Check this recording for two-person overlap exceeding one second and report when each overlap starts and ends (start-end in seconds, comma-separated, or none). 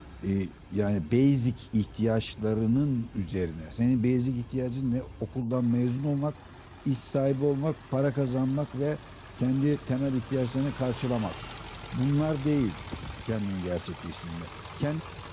none